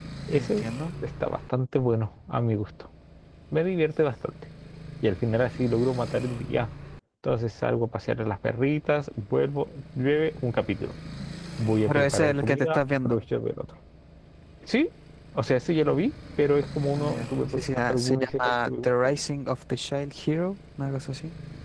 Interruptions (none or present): present